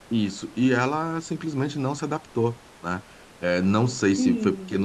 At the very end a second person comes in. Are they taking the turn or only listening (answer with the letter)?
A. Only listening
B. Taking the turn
A